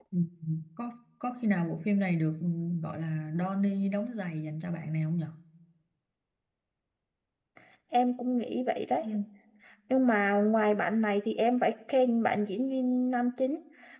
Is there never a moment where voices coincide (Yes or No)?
Yes